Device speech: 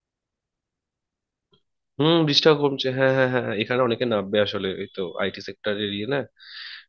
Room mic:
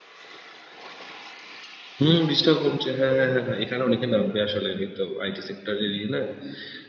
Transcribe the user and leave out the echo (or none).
none